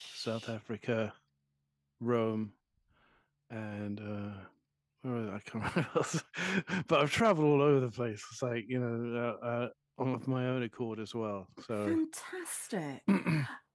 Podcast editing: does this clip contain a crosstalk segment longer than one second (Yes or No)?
No